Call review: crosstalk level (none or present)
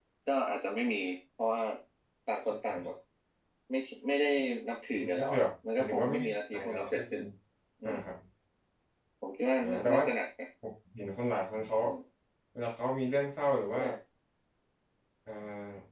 present